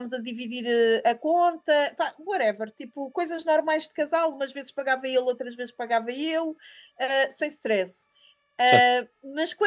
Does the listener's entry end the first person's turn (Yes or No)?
No